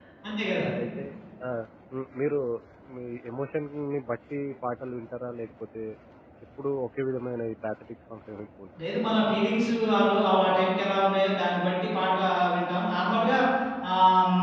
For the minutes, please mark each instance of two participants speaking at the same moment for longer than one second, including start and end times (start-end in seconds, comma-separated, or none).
none